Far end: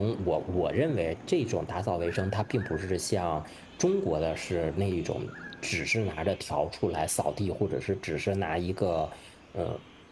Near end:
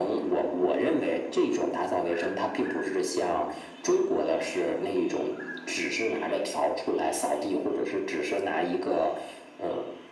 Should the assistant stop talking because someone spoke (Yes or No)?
No